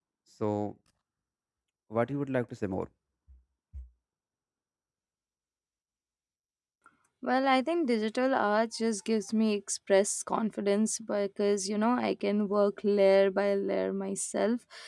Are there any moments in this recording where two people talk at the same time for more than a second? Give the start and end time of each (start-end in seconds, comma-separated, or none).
none